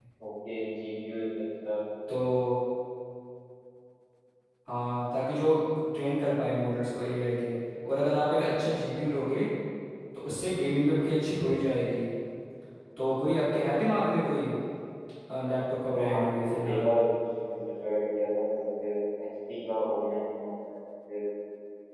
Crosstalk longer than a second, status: present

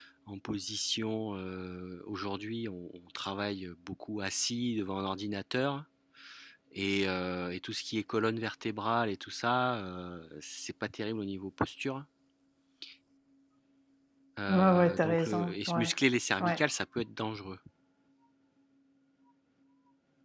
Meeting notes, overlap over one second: present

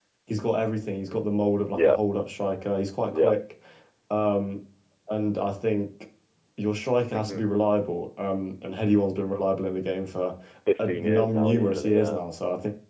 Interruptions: present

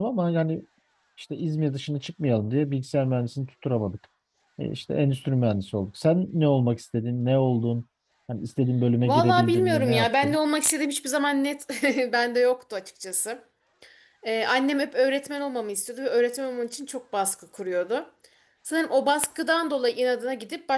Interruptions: present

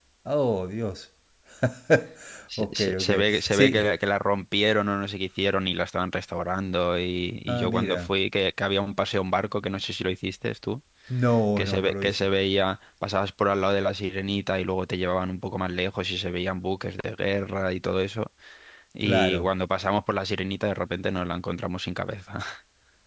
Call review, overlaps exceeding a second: present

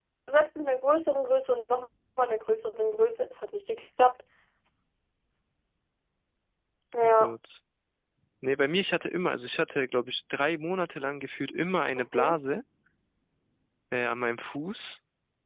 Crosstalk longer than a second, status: none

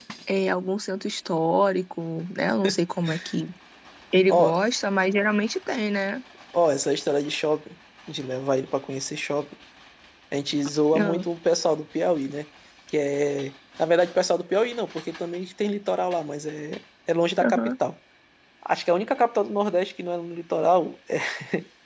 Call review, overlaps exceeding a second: none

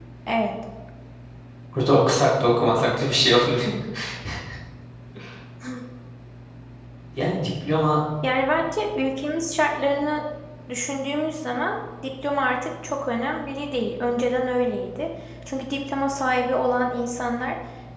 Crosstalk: none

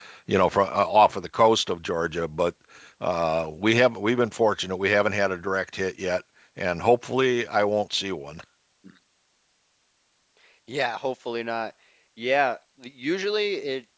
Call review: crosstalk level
none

